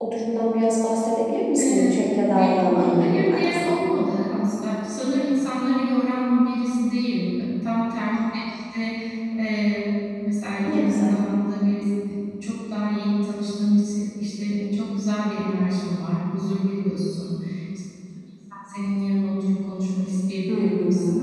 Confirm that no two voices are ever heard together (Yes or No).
No